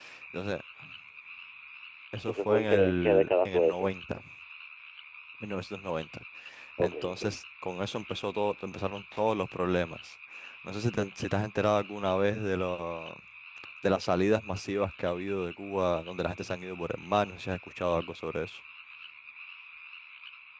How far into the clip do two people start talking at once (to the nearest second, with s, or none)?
2 s